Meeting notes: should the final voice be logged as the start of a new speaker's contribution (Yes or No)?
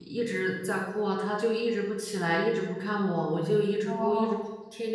No